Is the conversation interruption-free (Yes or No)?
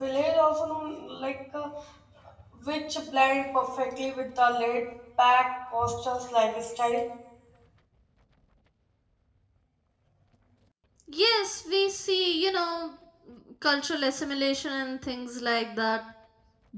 Yes